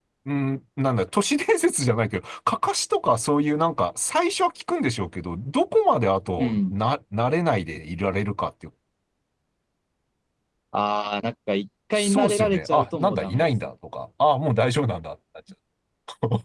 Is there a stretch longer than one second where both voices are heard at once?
Yes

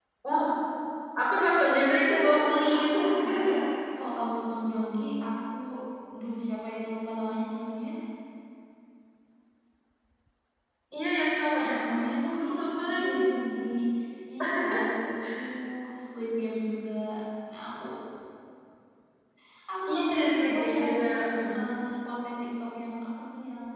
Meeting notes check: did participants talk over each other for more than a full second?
Yes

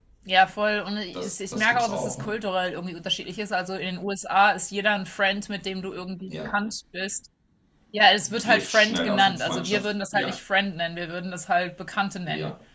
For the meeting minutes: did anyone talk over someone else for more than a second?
Yes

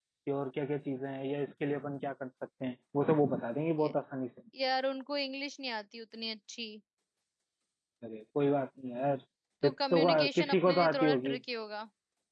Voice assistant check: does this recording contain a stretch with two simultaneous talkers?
Yes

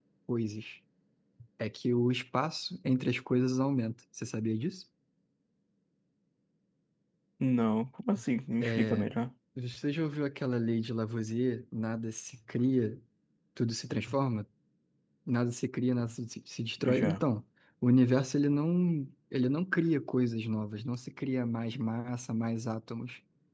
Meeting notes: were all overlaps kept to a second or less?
Yes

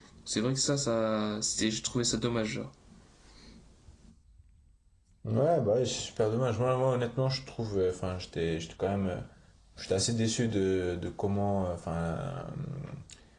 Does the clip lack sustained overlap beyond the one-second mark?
Yes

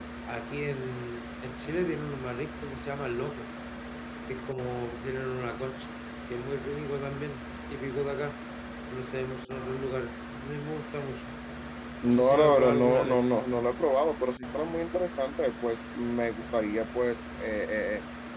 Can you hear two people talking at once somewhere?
Yes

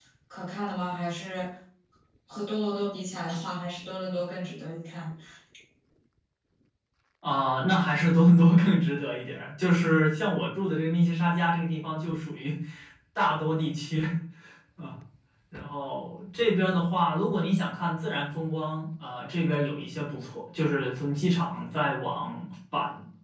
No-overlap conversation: Yes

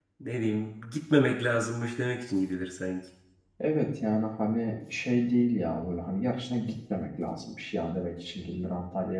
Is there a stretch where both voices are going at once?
No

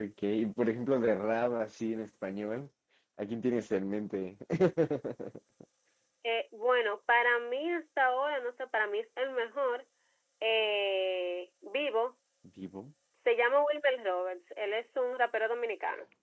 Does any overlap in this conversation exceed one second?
No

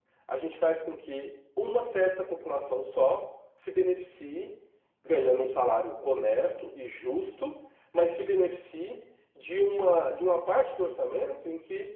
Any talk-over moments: No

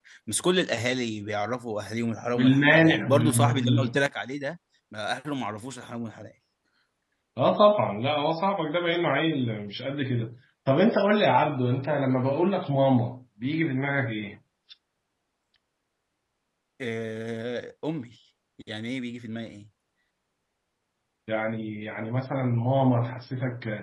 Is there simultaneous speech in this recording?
Yes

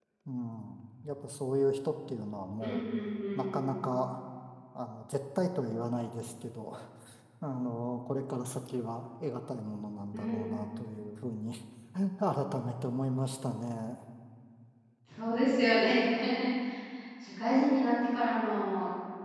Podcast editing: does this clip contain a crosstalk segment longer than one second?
No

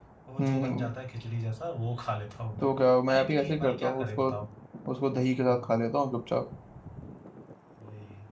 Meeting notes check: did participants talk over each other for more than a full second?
Yes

